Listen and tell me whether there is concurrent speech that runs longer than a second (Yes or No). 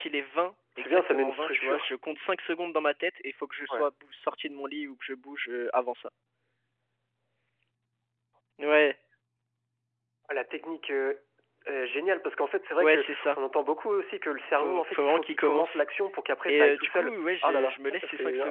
Yes